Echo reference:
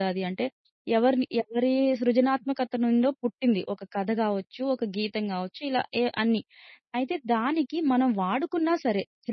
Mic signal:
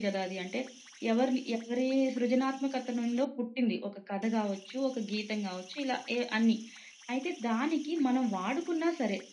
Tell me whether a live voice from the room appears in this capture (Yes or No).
No